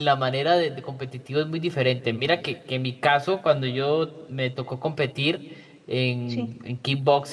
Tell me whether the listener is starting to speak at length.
No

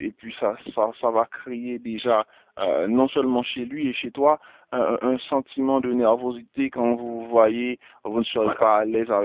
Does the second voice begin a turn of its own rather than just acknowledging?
No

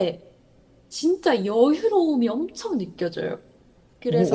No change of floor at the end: No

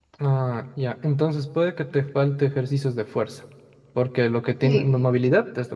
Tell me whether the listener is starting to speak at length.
No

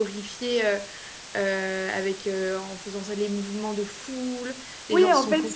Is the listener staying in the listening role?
No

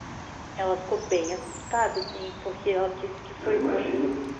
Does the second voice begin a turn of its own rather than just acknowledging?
No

